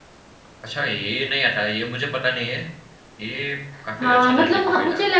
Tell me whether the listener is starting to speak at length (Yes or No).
Yes